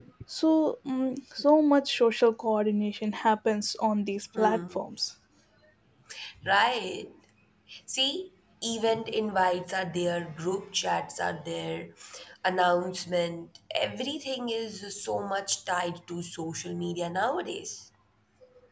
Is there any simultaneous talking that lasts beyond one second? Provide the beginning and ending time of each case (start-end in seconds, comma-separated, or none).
none